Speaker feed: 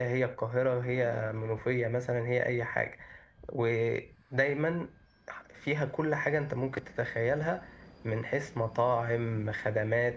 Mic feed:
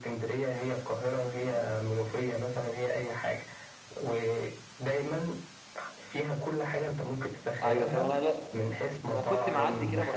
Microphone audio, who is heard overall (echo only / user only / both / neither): both